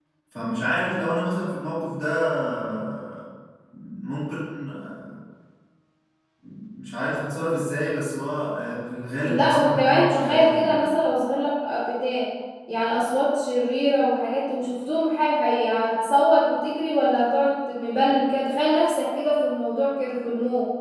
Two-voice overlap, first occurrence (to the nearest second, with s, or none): 9 s